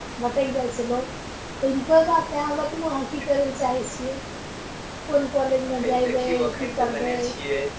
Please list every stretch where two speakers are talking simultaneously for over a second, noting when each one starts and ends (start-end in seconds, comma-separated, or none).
5.8-7.2